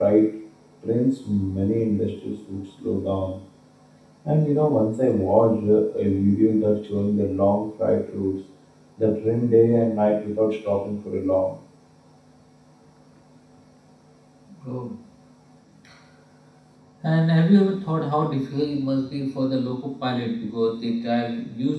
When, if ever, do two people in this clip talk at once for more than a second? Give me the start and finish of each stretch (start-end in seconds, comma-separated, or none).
none